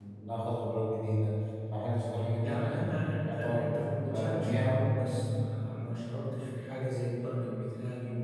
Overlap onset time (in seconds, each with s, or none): 2.4 s